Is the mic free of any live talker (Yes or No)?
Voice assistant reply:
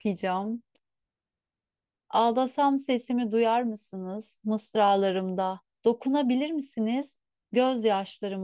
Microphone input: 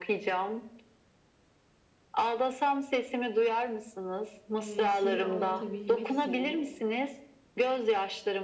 No